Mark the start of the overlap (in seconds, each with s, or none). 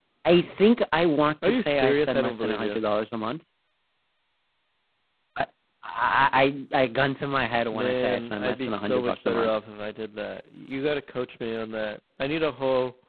1.4 s